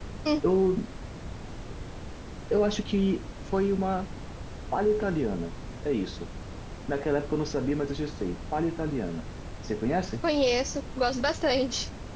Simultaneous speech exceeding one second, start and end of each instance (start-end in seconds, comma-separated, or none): none